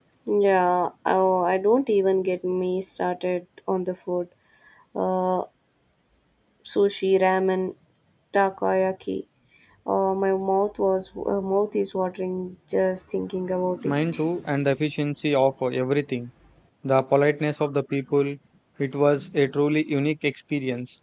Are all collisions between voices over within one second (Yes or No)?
Yes